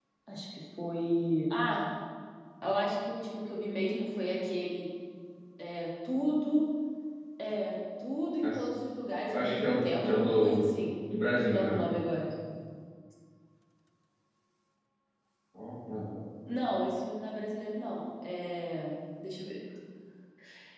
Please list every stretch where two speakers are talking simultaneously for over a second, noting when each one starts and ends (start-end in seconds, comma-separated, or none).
9.3-10.6